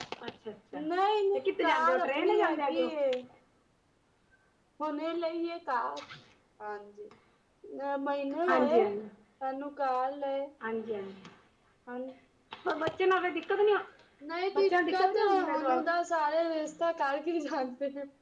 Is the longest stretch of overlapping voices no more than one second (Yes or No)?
No